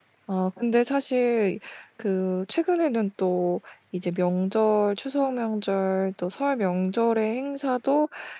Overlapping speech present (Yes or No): No